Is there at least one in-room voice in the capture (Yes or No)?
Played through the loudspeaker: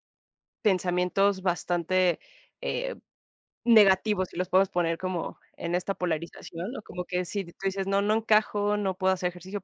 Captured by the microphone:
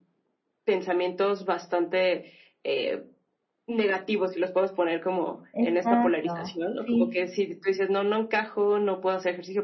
Yes